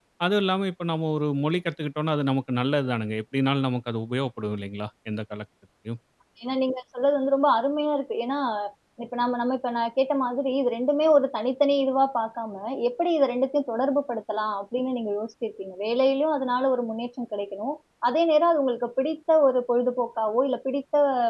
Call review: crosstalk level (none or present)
none